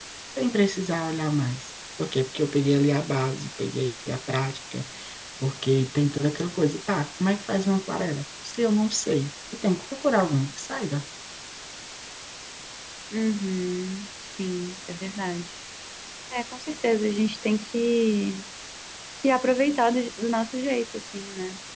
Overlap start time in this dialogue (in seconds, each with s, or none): none